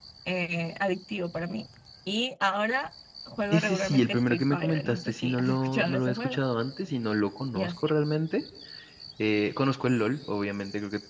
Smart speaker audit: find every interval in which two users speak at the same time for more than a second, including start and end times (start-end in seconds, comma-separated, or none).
3.5-6.4